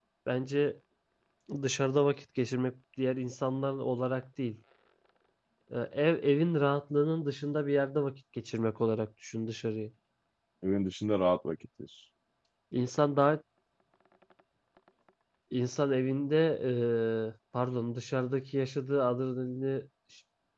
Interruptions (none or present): none